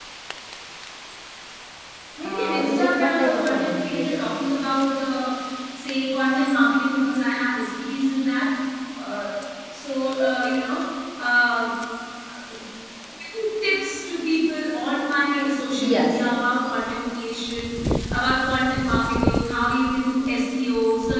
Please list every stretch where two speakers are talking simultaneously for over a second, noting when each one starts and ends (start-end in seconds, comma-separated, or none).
2.2-4.3